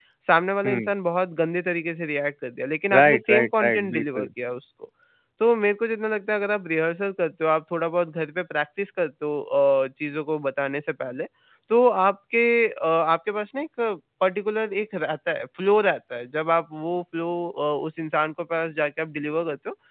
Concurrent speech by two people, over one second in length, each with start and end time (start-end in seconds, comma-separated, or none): 2.9-4.3